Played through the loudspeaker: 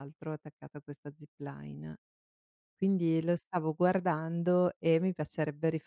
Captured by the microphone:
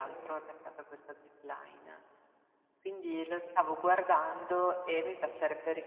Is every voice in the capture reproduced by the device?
Yes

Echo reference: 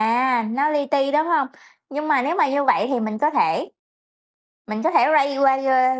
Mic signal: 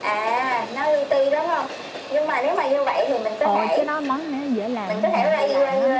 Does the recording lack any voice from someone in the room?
No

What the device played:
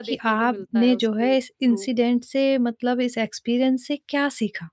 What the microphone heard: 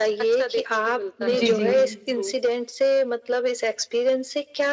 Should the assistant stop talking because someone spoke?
Yes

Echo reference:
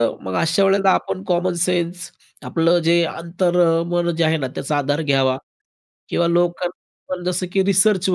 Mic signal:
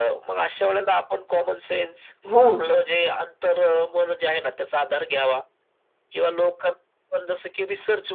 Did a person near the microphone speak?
Yes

